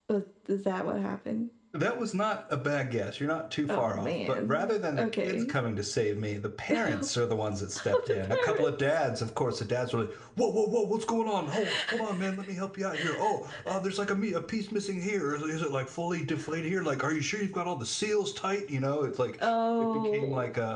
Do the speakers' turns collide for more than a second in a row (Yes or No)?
Yes